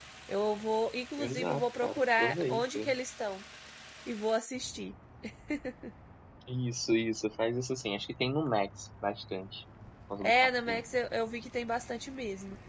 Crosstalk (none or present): present